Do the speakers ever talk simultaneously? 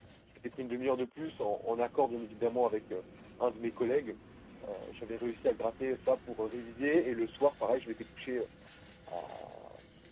No

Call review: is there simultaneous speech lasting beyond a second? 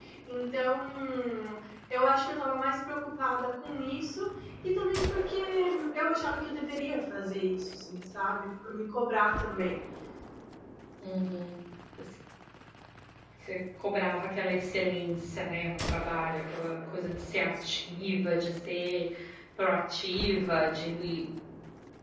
No

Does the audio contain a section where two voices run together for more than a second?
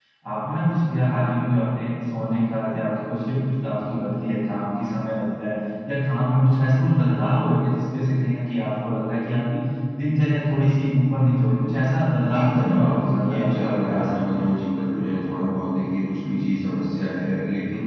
Yes, from 12.2 s

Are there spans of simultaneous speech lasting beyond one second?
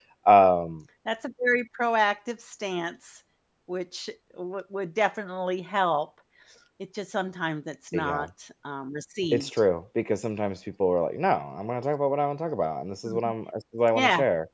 No

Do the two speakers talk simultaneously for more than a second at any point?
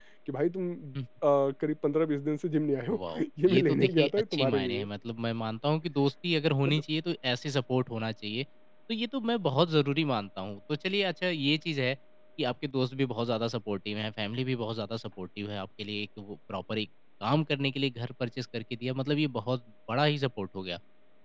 Yes, from 2.9 s

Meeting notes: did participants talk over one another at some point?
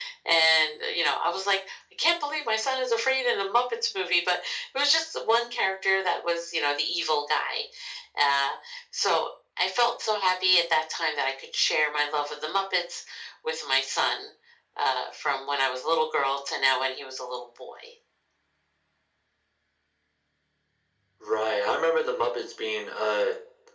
No

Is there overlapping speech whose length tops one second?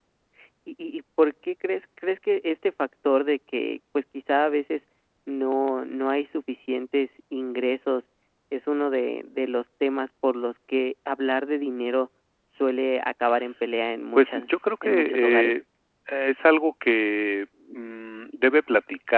Yes, from 14.1 s

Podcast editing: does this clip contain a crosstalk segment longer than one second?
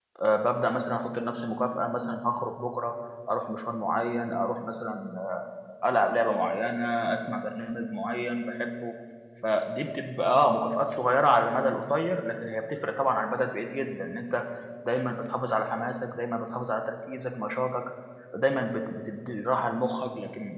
No

